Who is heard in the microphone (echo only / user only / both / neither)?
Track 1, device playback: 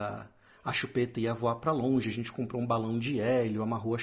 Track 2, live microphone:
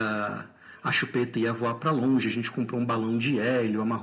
echo only